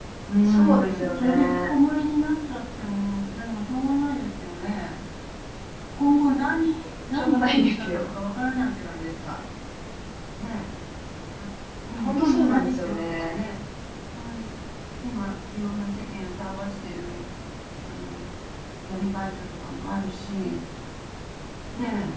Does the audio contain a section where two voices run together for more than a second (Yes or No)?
Yes